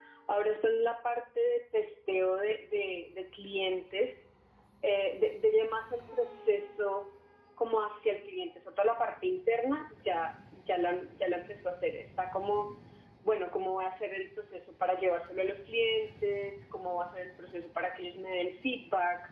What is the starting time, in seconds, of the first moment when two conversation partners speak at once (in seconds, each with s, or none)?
none